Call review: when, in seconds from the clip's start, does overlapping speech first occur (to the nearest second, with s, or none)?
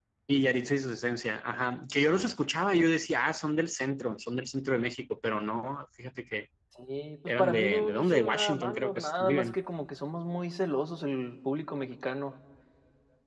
7 s